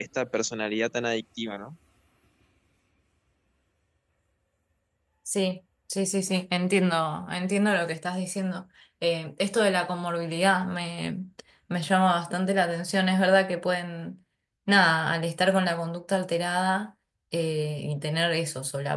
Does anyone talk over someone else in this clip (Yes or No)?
No